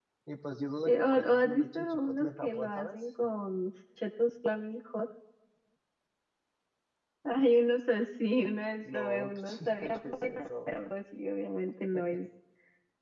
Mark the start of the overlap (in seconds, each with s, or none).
0.8 s